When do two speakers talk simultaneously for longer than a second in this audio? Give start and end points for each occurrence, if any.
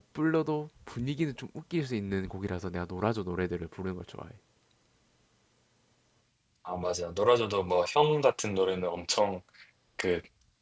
none

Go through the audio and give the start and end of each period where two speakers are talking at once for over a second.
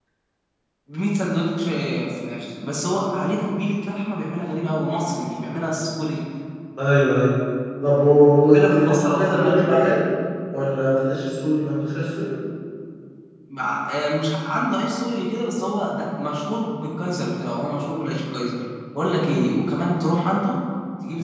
8.4-9.9

